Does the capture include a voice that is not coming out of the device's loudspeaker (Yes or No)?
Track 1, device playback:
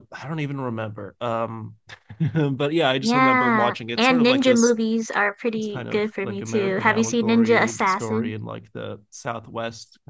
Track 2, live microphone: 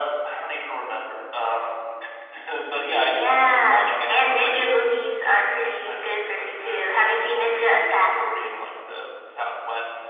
No